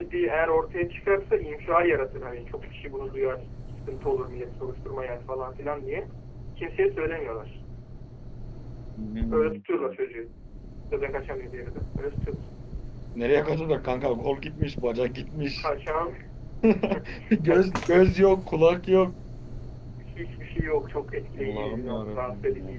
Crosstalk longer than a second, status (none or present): present